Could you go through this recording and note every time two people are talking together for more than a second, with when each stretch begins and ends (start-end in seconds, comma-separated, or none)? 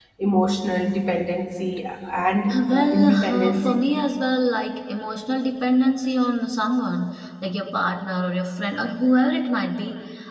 2.5-3.8